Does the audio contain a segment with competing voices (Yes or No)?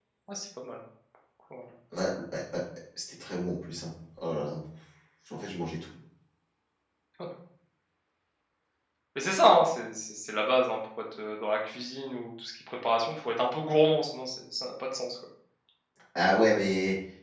No